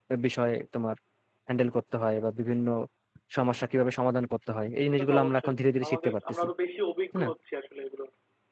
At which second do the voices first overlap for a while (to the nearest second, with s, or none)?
5 s